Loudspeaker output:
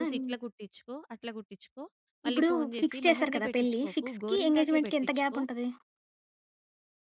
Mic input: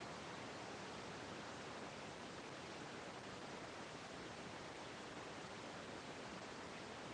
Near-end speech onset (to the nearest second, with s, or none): none